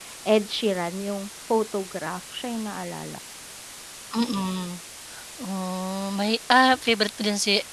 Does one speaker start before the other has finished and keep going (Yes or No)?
No